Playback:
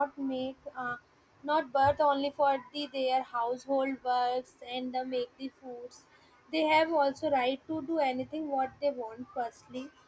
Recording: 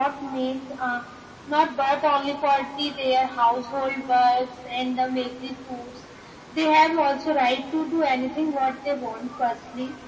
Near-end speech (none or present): none